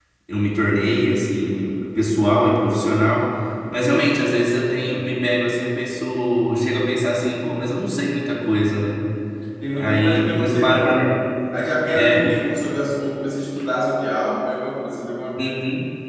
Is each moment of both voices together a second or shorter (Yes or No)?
No